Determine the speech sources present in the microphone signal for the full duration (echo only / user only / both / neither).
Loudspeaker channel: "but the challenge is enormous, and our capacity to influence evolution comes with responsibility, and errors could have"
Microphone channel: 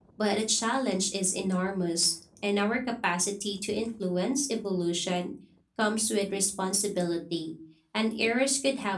echo only